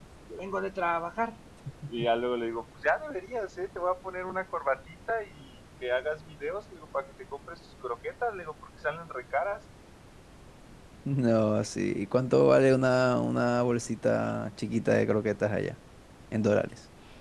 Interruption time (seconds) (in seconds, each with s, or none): none